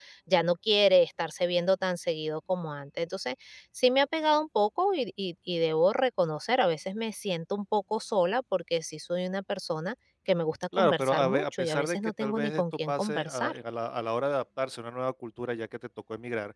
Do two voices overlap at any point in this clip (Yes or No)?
Yes